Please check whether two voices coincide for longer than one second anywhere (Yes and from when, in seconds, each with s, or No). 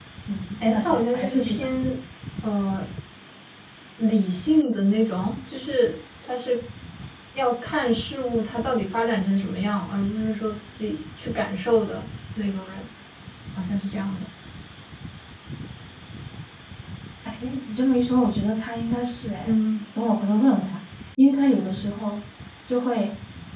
Yes, from 0.6 s